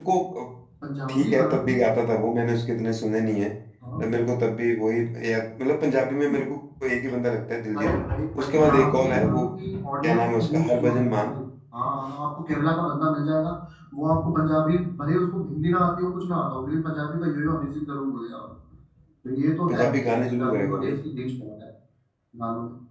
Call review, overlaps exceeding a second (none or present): present